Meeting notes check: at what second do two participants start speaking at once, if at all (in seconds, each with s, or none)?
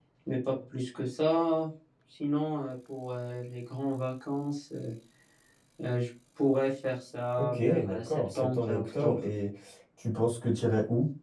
7.4 s